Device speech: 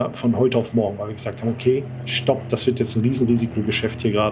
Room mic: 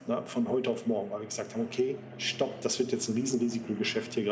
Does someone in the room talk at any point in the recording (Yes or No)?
No